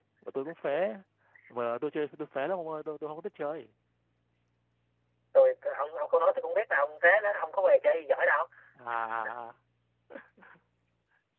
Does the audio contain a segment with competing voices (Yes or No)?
No